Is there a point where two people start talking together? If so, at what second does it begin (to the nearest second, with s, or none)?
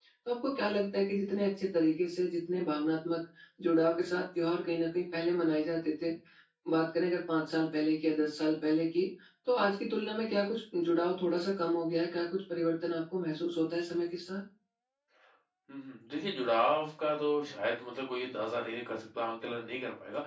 none